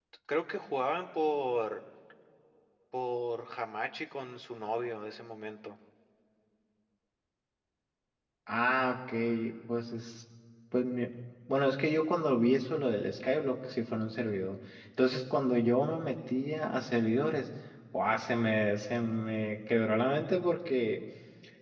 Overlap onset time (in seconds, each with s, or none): none